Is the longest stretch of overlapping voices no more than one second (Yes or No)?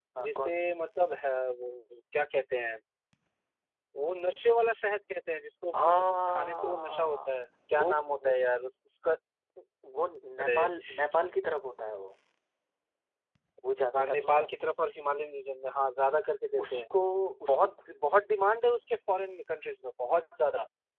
No